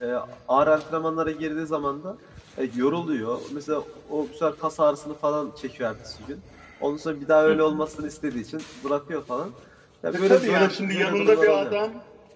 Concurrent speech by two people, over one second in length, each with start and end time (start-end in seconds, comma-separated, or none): 10.1-11.8